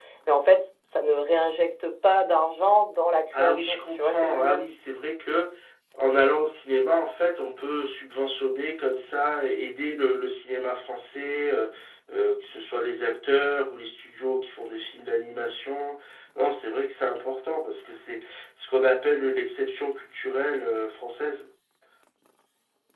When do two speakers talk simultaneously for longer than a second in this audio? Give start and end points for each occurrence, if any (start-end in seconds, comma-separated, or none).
3.4-4.6